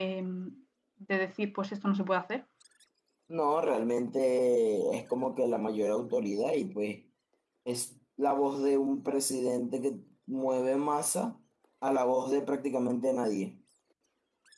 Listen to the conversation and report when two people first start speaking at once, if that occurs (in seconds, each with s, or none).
none